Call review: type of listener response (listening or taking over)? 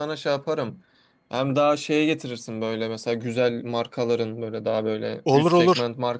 listening